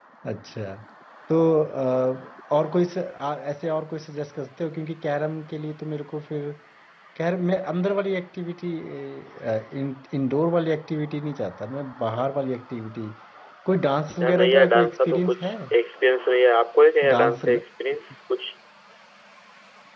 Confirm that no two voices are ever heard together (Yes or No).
No